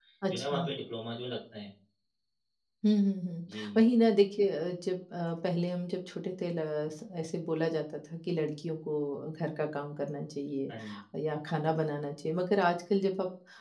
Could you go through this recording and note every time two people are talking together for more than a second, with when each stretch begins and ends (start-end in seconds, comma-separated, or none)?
none